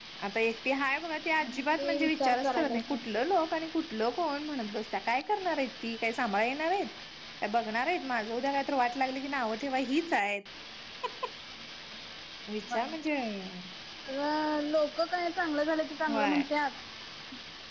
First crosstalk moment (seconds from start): 1.7 s

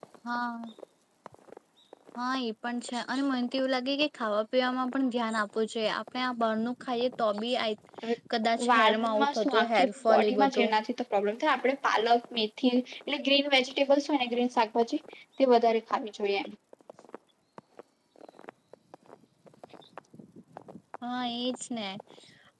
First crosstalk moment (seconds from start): 8.6 s

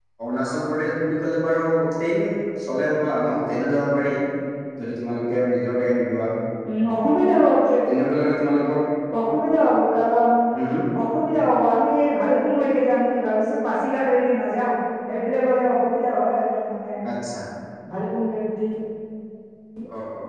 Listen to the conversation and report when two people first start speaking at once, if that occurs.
none

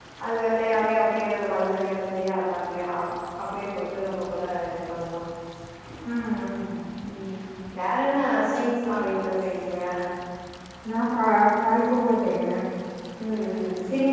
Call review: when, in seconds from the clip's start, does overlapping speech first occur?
none

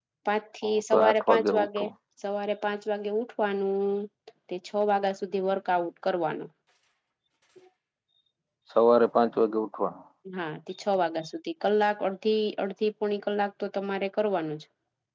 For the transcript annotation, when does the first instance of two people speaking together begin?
0.6 s

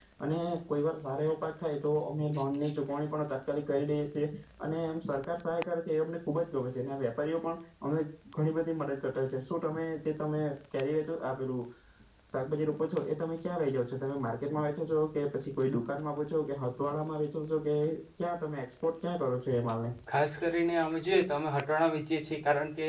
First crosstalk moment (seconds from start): none

